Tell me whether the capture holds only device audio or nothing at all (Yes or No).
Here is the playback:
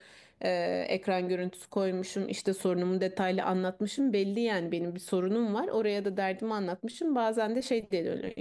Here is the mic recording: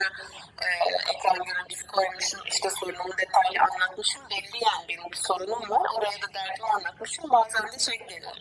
Yes